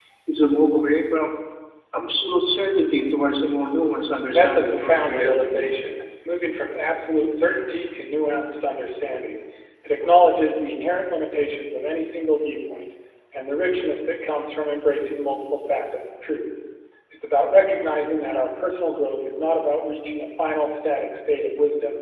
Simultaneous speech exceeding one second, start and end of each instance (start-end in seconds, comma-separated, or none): 4.3-5.7